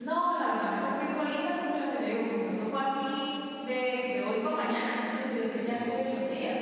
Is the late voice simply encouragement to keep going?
Yes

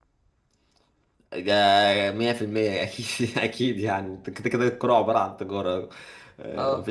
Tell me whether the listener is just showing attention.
Yes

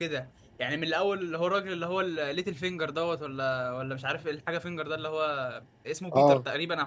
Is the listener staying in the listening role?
Yes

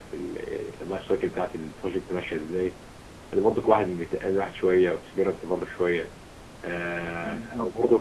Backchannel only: Yes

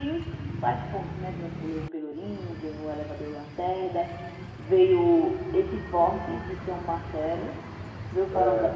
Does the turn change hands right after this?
No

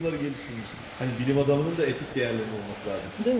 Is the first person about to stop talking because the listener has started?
No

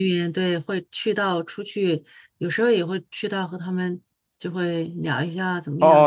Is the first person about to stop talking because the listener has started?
Yes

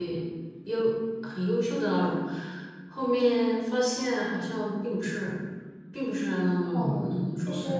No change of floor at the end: No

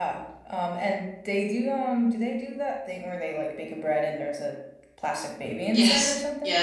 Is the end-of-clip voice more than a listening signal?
Yes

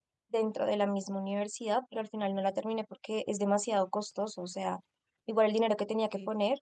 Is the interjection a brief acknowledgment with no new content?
Yes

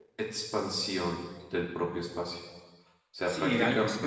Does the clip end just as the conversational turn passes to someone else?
Yes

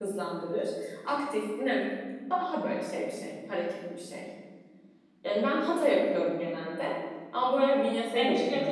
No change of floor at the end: No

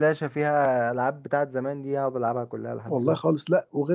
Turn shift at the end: Yes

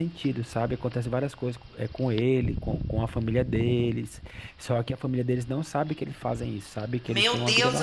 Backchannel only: No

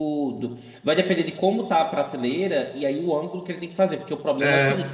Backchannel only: Yes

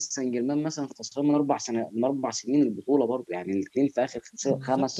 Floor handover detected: Yes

